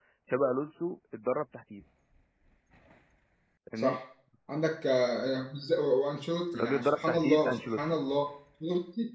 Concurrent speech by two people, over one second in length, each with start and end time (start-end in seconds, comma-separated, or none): 6.6-7.8